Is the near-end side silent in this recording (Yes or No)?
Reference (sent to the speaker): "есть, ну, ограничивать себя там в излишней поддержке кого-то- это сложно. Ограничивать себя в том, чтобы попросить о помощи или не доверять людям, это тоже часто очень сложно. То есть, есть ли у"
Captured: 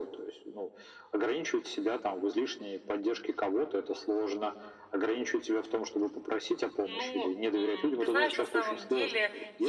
No